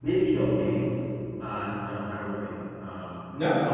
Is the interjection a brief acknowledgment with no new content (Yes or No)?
Yes